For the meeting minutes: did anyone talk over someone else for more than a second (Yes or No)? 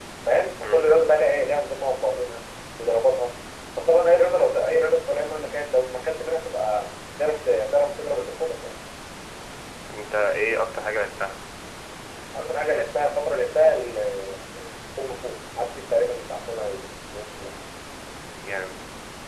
No